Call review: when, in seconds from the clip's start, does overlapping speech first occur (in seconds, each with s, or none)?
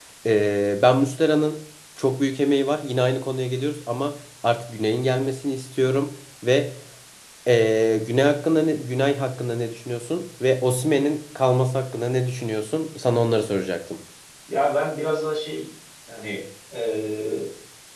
none